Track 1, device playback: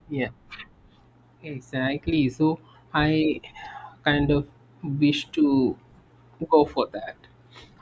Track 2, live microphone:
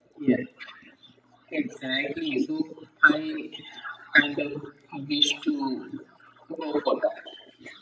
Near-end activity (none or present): none